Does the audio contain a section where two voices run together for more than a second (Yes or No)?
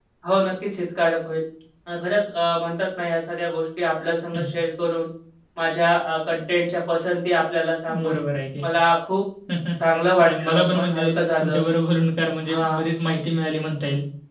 Yes